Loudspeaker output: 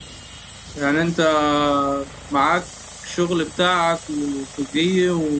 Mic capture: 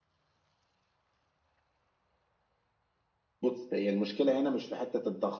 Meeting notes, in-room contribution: present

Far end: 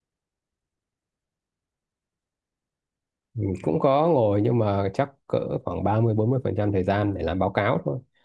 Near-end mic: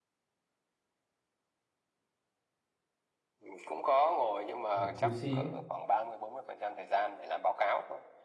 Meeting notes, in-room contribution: present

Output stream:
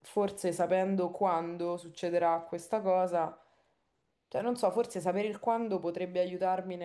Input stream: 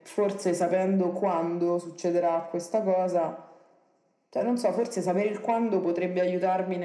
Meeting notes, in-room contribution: none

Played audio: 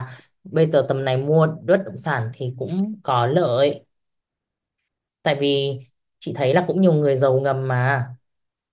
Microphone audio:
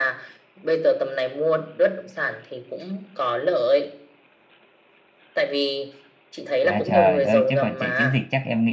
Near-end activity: present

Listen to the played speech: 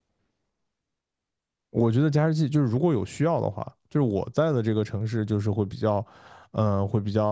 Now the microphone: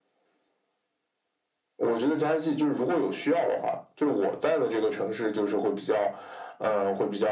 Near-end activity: none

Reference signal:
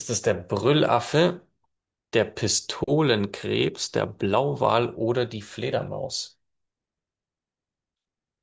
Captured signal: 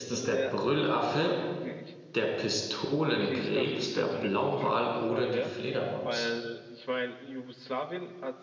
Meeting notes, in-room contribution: present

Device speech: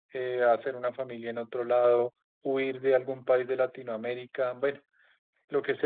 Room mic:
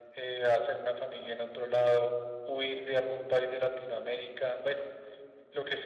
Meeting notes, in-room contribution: none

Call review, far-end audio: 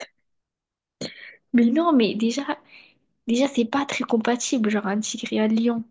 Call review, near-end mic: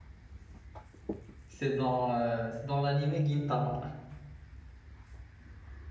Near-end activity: present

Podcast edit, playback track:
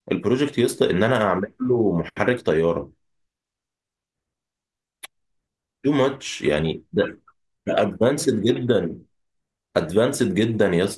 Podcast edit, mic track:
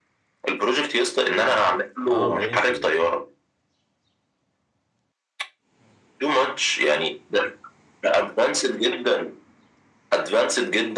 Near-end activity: present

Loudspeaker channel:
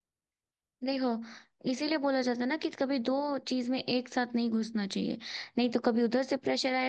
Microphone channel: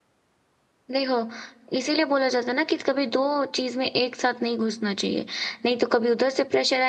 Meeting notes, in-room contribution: none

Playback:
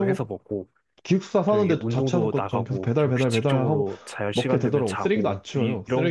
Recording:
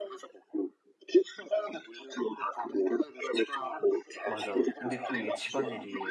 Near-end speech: present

